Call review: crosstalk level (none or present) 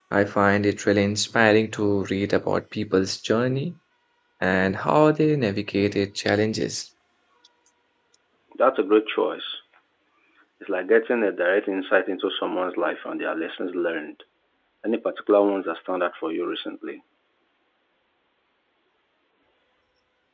none